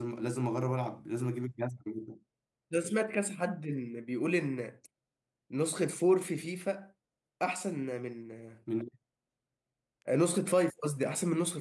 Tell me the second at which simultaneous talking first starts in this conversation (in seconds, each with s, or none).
none